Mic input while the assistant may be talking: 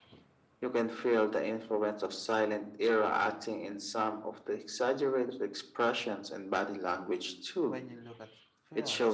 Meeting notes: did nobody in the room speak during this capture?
No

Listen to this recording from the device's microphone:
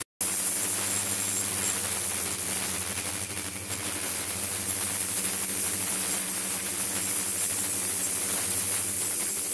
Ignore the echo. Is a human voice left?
No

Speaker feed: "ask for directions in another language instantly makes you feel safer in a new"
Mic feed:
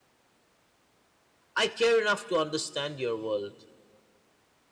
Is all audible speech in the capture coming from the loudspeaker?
No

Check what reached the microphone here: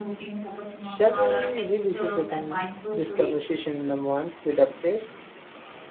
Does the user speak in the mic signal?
Yes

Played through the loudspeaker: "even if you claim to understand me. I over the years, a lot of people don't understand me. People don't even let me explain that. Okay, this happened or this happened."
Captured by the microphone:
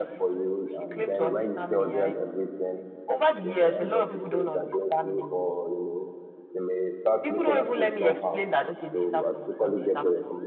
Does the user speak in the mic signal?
Yes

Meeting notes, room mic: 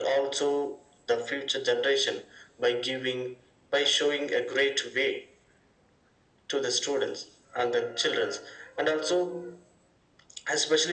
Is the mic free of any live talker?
Yes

